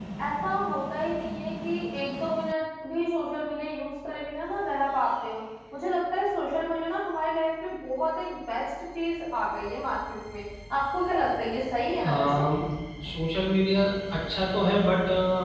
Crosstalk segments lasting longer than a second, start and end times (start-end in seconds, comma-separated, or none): none